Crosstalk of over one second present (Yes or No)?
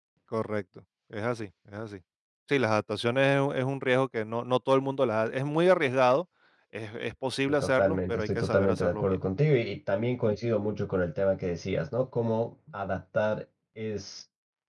Yes